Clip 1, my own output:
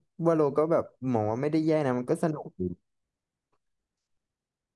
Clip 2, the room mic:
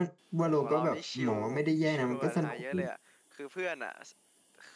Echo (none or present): present